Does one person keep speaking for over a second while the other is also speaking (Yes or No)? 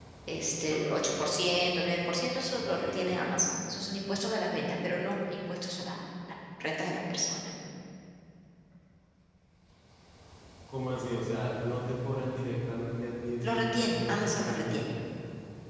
Yes